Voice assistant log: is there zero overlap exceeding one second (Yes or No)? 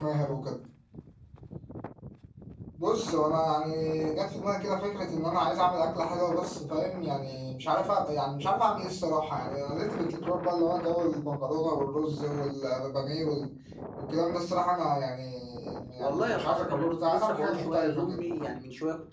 No